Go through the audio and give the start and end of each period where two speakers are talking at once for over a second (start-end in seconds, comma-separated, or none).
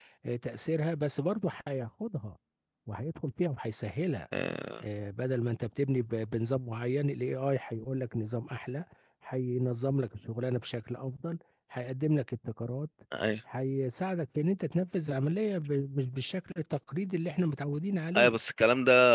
none